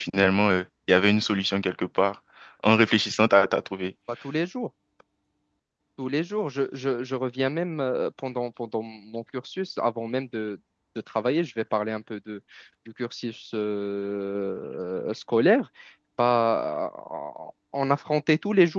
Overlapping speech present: No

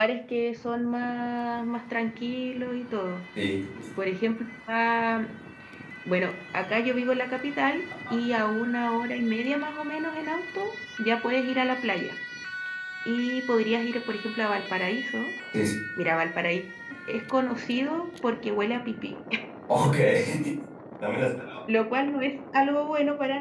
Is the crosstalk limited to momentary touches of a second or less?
Yes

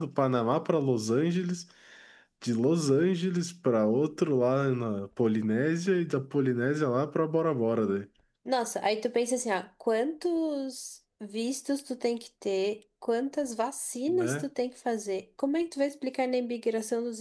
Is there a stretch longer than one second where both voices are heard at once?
No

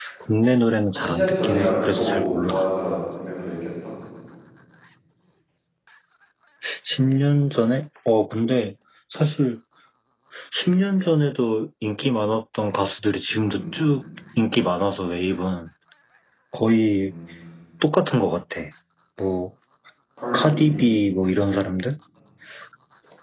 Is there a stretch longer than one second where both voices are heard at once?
Yes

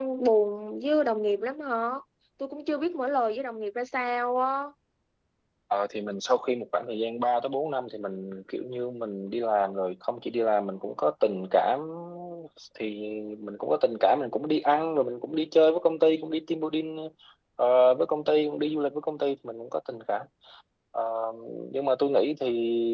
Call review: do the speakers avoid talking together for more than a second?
Yes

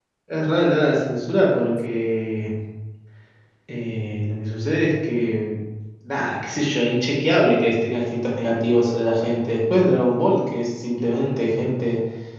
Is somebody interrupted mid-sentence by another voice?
No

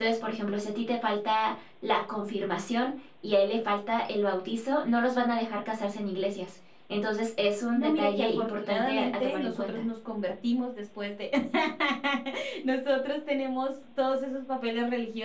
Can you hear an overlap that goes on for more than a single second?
Yes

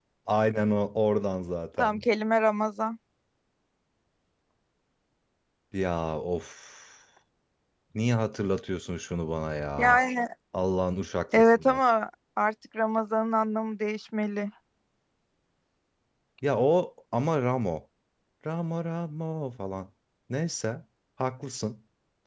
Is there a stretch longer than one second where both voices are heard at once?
No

